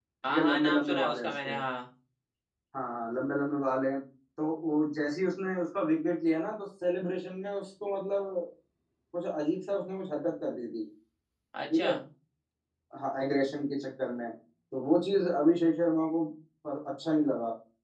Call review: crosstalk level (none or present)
present